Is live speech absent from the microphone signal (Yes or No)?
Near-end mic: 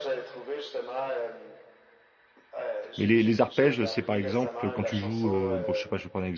No